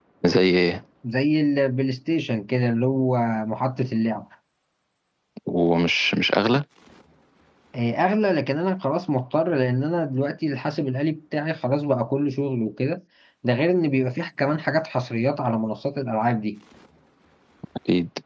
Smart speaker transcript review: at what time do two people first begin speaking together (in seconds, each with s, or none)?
none